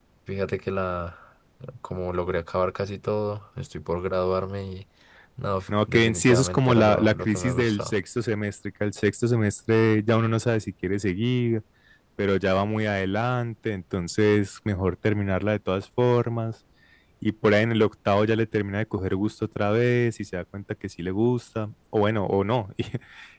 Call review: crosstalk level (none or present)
present